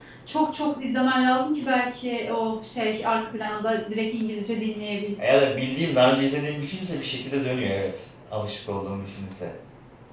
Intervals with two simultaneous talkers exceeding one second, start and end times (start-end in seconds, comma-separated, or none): none